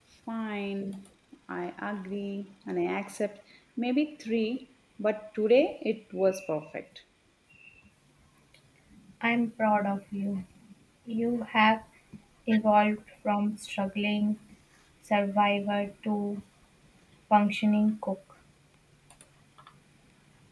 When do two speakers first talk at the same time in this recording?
none

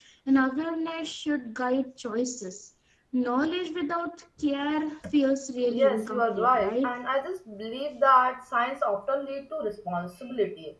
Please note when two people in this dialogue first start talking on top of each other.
5.7 s

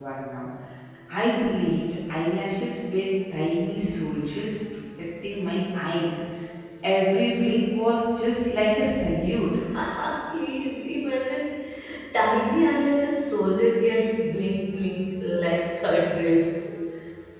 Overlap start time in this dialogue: none

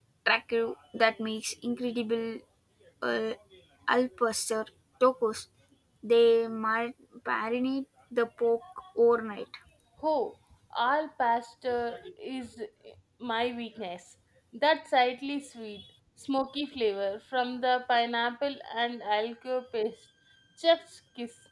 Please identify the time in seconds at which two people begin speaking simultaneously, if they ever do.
none

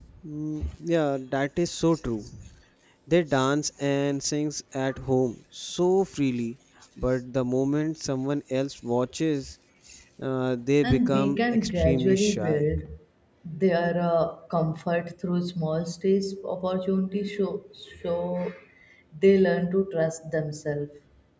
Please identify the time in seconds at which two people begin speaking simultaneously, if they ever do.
10.8 s

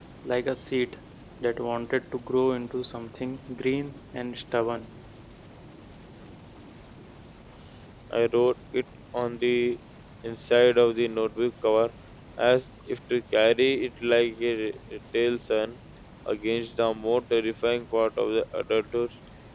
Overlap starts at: none

